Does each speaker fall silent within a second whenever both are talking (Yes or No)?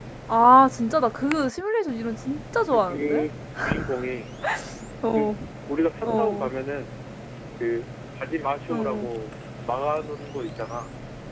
Yes